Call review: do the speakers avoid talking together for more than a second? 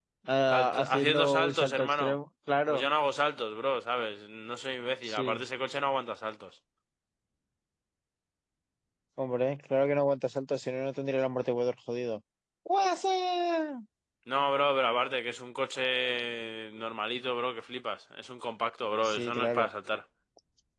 No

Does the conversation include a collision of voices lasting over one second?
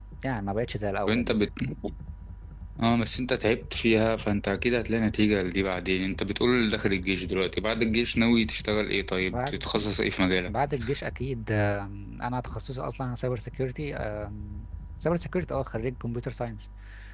No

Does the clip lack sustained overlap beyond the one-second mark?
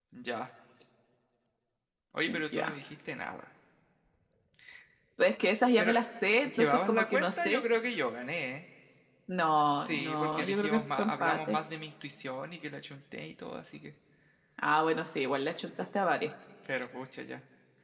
No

